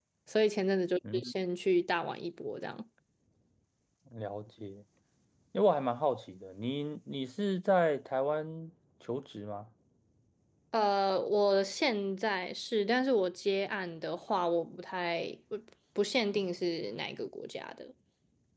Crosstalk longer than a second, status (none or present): none